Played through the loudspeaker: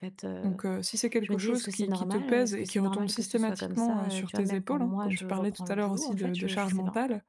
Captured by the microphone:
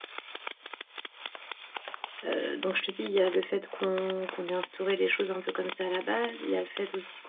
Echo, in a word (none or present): none